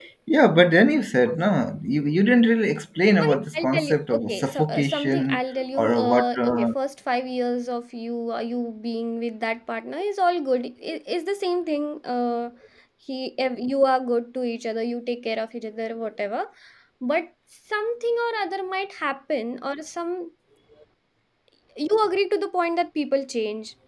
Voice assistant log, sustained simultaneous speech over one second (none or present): present